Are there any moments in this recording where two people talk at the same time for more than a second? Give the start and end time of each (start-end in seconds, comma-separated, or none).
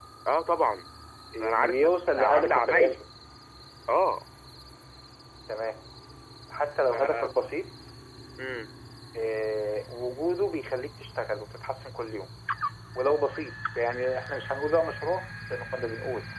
1.4-3.0